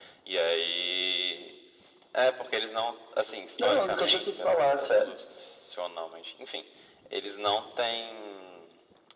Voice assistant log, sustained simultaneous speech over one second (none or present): present